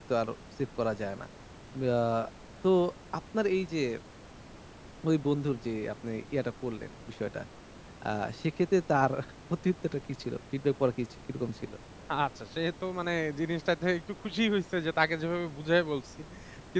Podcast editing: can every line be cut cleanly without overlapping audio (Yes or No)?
Yes